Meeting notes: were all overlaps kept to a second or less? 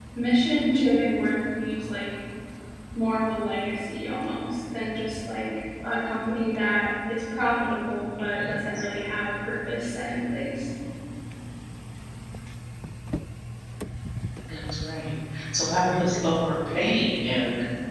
Yes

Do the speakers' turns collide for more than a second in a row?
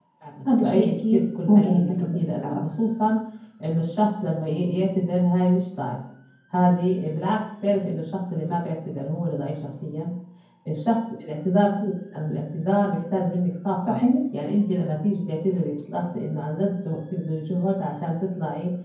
Yes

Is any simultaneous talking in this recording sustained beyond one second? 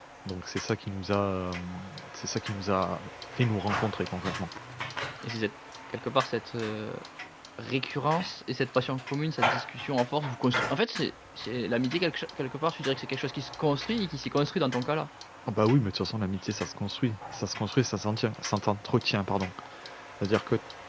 No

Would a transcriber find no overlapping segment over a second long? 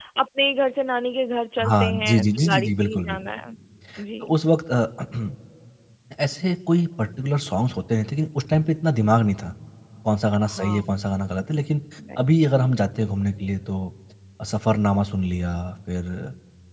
No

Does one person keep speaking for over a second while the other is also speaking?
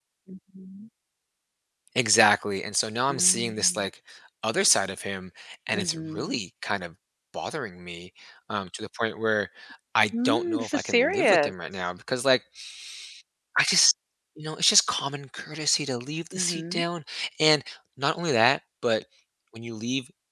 Yes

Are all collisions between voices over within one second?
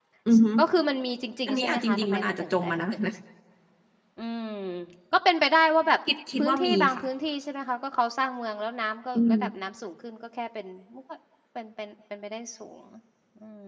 No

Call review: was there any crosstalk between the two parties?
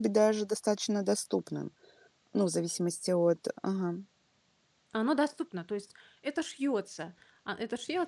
No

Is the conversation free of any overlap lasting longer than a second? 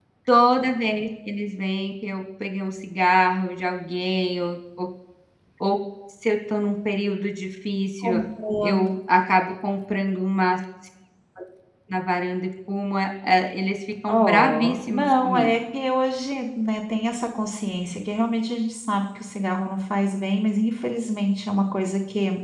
No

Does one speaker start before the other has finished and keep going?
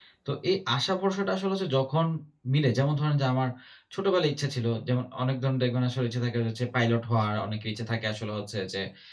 No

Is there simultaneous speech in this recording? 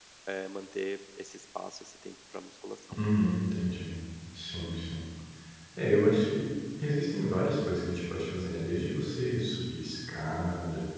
No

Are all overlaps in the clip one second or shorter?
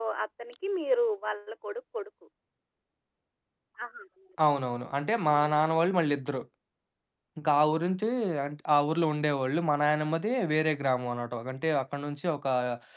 Yes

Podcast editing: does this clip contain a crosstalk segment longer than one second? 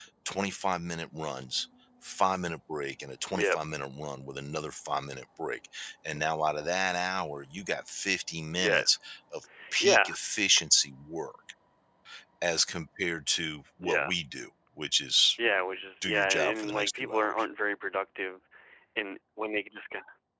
Yes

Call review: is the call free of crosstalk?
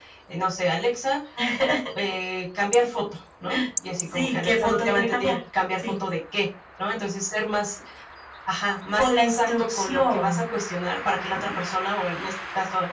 No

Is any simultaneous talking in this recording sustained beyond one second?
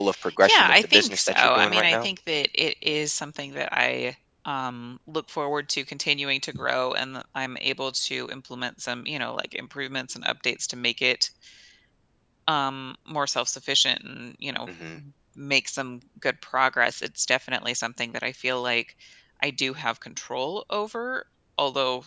Yes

